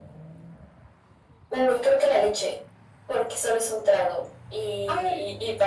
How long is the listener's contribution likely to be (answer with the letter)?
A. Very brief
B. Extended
A